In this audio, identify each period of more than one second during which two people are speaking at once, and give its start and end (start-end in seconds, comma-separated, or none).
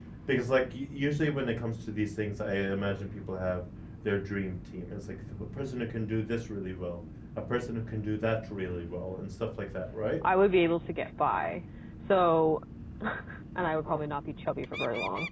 none